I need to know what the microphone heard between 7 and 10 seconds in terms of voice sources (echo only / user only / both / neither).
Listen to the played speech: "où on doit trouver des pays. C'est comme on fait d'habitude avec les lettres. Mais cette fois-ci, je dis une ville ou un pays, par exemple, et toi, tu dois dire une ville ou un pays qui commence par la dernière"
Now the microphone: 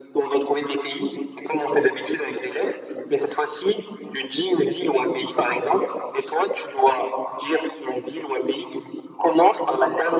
echo only